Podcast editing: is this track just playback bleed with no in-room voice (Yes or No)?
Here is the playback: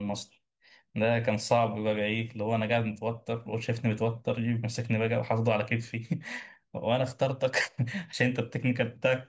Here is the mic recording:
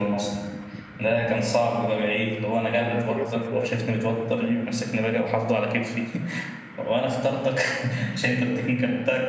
No